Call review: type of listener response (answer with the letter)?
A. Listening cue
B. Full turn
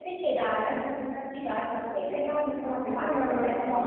B